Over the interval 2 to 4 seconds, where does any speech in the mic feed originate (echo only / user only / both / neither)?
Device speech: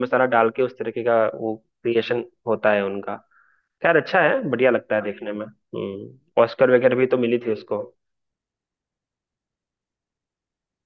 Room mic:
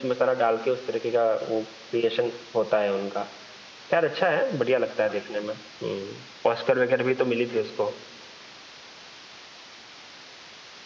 echo only